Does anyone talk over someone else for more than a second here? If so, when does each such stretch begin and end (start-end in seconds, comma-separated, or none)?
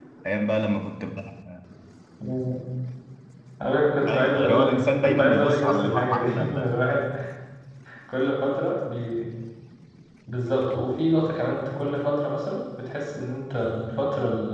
4.1-6.7